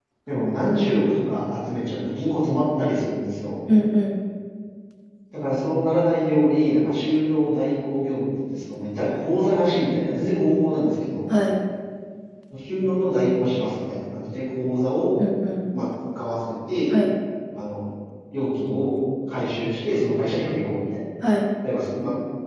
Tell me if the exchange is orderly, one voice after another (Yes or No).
Yes